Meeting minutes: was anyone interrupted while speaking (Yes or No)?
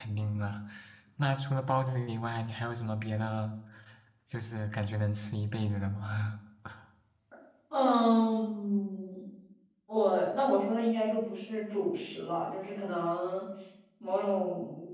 No